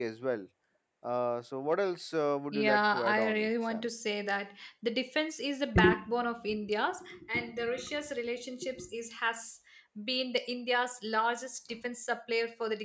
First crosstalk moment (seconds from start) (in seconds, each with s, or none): 2.5 s